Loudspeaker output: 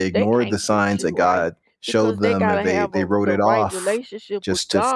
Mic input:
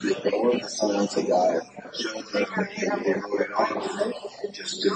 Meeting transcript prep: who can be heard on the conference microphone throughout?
echo only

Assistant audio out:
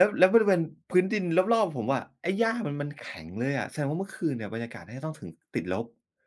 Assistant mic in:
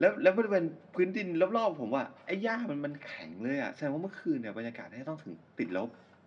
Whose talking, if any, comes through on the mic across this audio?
echo only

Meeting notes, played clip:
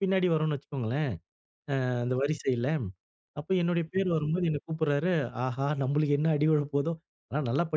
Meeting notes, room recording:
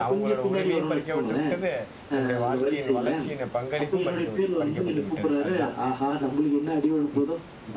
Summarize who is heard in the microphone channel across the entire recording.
both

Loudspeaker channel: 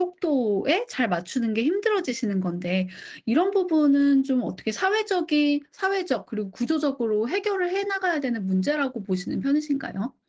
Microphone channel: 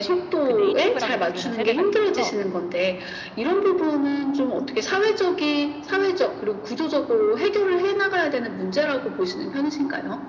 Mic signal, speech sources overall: both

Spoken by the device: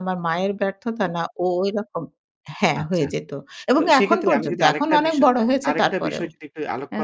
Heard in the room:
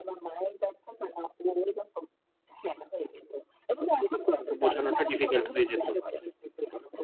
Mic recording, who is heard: both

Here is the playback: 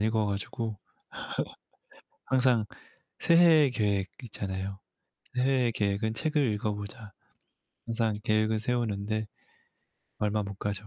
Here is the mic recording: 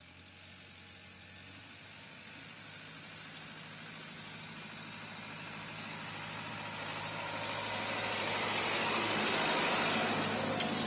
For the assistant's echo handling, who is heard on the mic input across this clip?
neither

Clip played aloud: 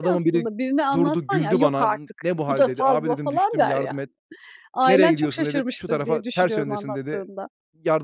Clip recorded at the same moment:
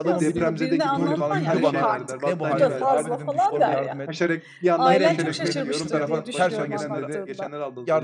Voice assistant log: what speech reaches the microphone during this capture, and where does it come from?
both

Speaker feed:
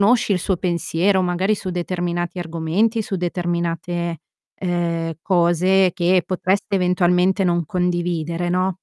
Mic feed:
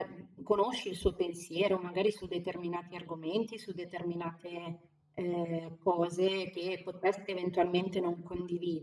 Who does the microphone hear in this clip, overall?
echo only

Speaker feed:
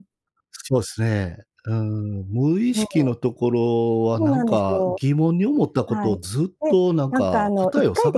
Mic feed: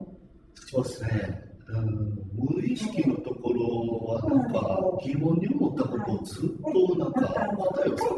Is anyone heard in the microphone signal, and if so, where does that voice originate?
echo only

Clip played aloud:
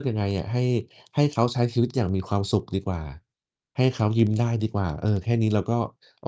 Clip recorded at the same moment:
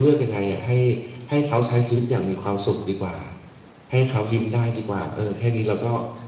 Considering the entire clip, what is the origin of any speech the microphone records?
echo only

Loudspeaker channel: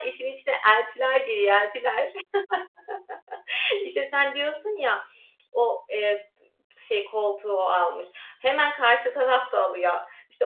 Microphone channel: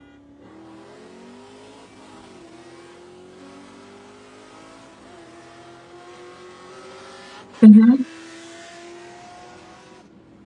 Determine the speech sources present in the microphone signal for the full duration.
user only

